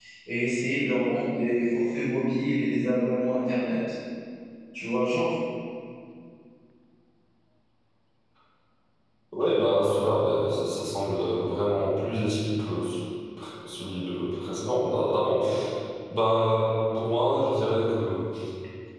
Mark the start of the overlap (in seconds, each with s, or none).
none